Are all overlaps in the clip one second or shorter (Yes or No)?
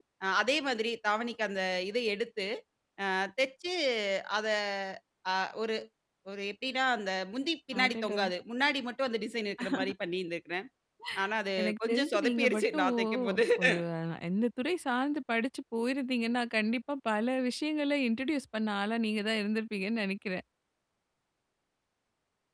No